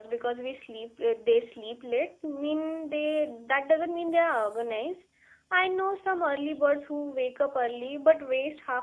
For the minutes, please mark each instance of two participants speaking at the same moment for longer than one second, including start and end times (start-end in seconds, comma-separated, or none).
none